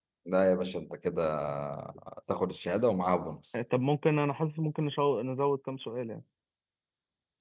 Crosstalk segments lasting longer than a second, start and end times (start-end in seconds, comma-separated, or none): none